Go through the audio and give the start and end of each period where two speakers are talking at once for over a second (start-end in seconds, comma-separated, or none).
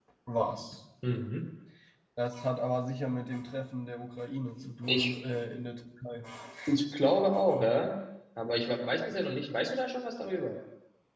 none